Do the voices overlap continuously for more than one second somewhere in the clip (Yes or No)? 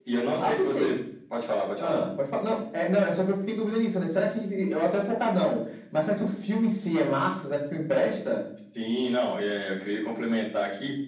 No